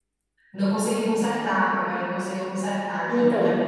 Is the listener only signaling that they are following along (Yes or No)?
No